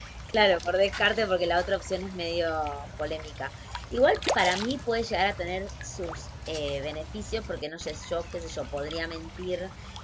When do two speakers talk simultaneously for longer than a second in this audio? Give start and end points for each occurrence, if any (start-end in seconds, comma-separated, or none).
none